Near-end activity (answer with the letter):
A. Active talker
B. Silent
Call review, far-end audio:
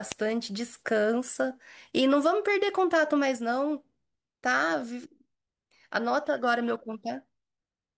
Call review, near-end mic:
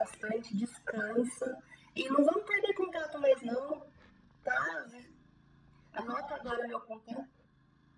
B